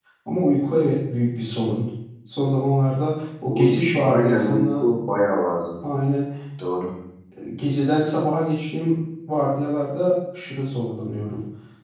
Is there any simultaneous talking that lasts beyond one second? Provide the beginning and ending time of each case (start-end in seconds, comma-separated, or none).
3.5-4.9